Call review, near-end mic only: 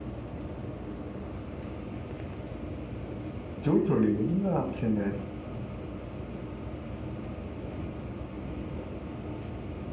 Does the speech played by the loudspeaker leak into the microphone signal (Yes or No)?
No